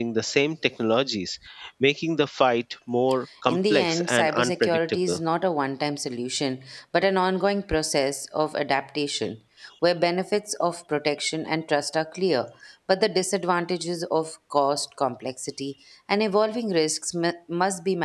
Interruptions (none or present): present